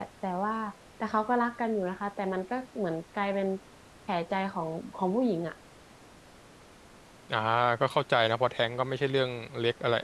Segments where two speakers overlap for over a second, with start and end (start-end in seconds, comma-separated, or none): none